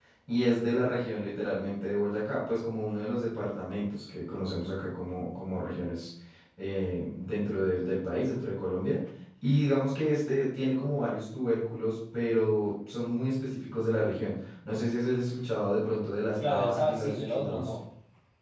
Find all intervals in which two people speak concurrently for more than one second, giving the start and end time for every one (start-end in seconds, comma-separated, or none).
16.4-17.7